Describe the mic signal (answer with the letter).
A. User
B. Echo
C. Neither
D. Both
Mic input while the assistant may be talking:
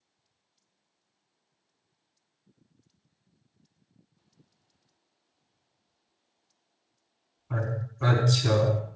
A